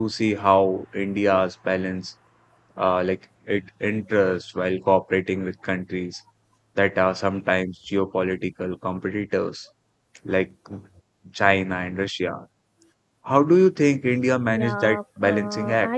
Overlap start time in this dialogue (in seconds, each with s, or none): 14.5 s